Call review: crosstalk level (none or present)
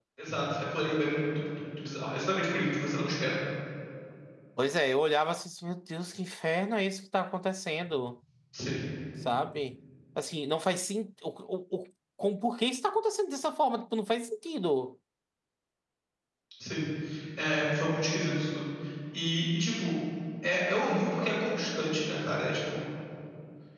none